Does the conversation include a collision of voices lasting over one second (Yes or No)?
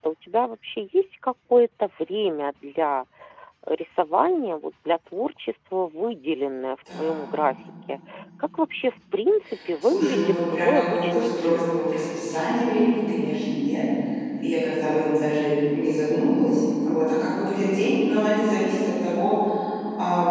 Yes